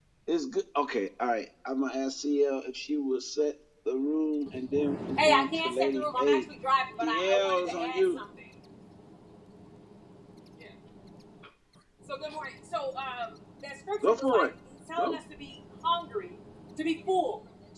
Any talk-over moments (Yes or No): Yes